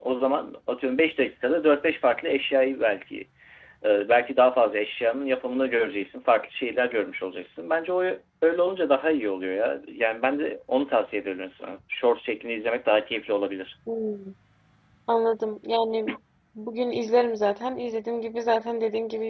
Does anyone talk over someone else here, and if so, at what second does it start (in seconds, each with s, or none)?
none